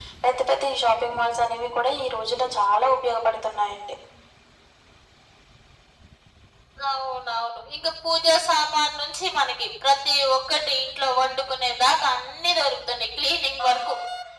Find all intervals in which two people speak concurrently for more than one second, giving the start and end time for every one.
none

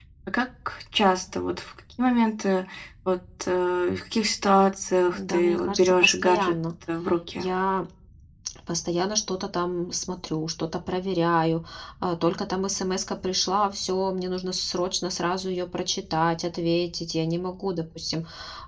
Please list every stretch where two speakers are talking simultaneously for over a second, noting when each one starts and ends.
5.1-6.5

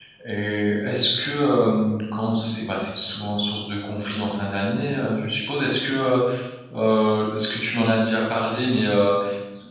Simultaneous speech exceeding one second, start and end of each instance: none

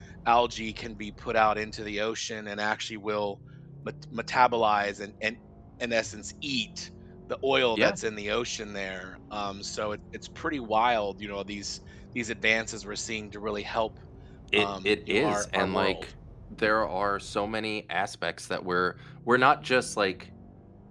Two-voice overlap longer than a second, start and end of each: 14.6-16.0

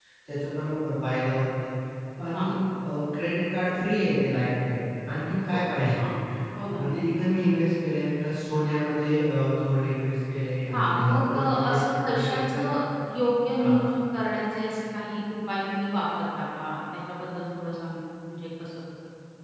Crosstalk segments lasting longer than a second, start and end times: 10.7-12.7

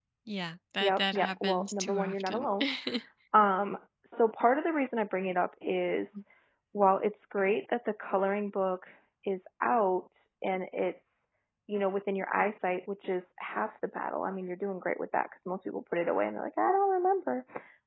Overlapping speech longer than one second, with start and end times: 0.8-2.5

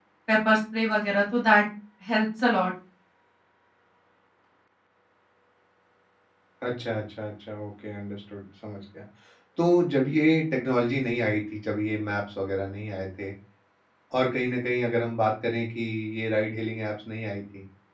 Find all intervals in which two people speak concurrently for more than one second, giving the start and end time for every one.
none

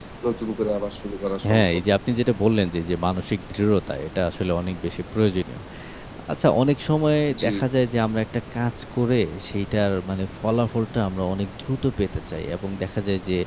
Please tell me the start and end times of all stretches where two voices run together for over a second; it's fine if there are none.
none

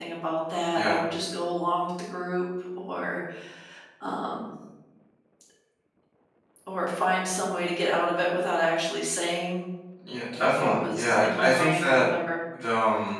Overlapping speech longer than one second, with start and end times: 10.6-12.1

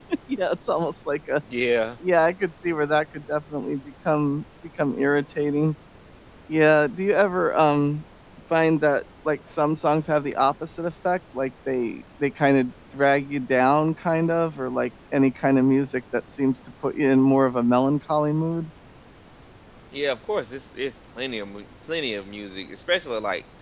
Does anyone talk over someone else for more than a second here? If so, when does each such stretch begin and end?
none

